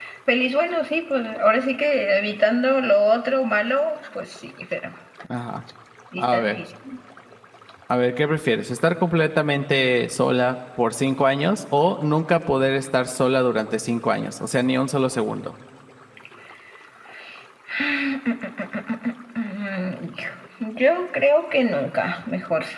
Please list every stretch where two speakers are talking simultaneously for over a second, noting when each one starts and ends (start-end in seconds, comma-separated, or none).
none